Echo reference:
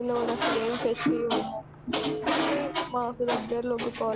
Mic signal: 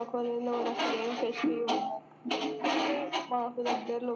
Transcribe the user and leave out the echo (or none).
none